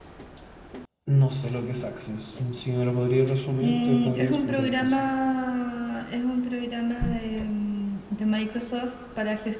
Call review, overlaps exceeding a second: present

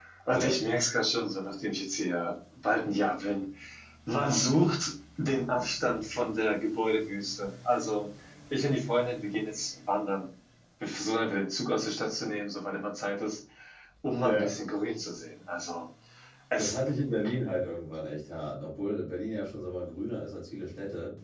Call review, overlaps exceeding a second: none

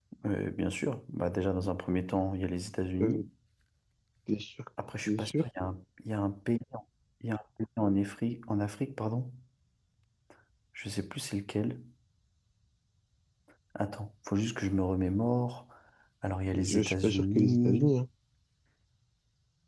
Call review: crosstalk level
present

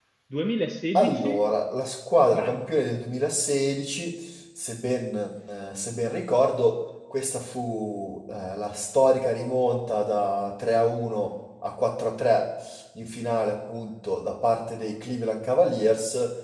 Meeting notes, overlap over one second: none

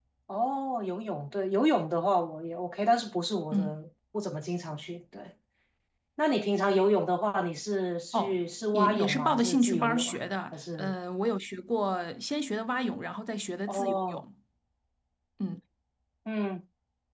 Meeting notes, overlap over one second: present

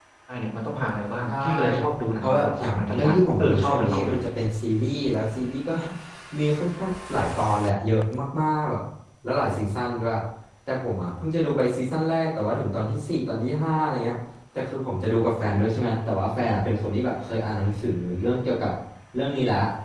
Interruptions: present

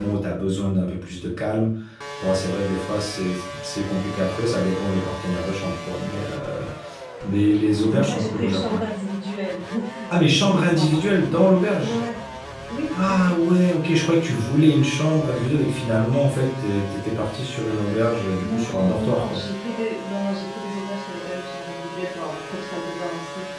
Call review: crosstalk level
present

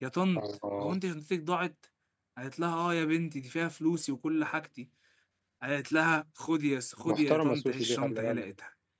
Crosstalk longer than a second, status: present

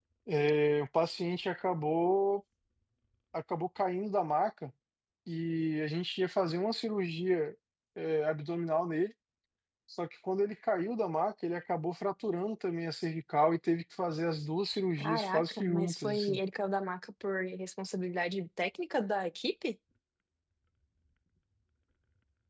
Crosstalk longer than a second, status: present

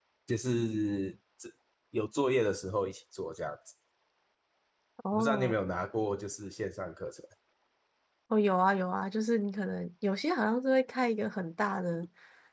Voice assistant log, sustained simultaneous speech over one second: none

